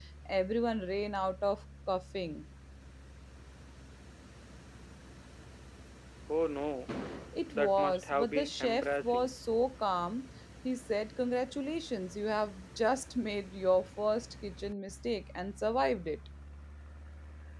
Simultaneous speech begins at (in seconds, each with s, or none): 7.5 s